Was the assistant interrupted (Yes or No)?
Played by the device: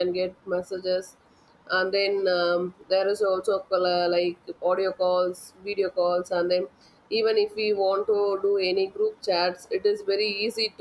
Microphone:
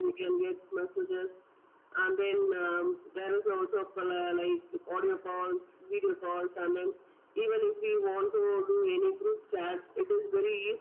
No